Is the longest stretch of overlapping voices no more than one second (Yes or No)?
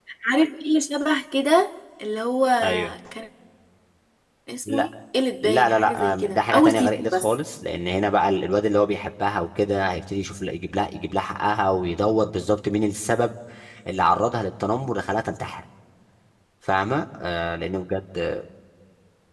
No